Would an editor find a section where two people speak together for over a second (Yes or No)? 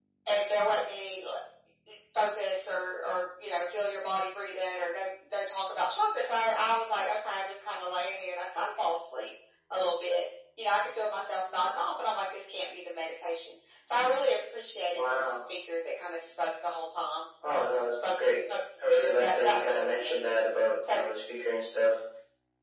Yes